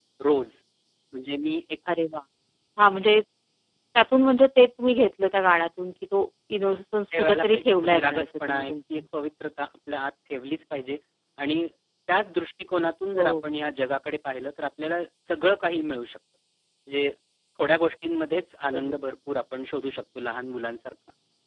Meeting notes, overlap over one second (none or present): present